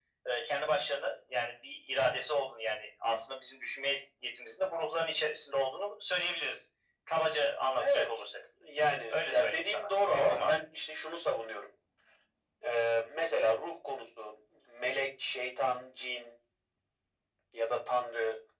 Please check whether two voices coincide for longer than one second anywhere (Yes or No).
Yes